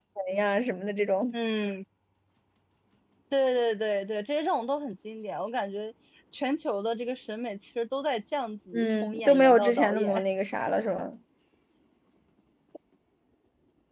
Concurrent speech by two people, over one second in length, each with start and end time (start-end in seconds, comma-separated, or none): 8.7-10.2